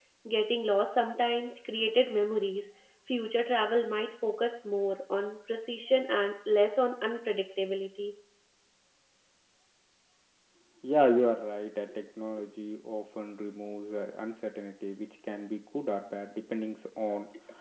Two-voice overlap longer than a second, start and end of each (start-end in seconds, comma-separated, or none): none